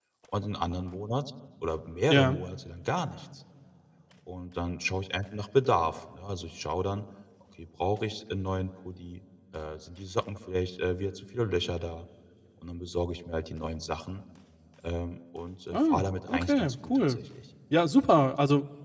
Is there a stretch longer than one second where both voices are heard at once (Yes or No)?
Yes